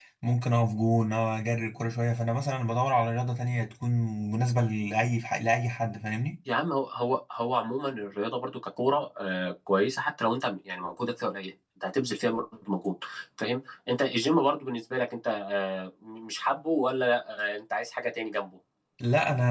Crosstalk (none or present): none